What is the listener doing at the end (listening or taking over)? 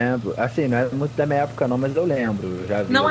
taking over